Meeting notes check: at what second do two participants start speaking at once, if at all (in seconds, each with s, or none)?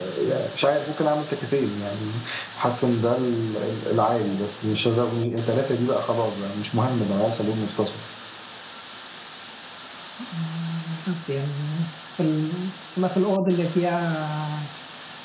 none